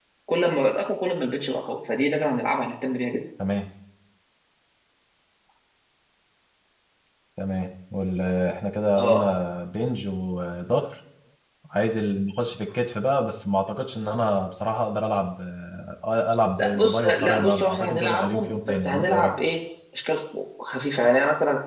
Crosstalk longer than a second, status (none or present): present